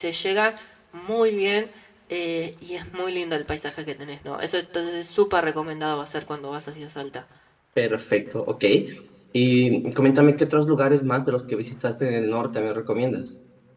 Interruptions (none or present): none